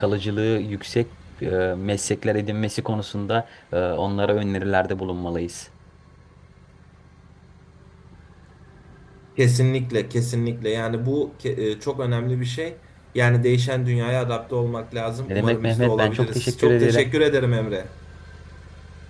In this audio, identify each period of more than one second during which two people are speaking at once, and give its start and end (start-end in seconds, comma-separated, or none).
15.3-17.1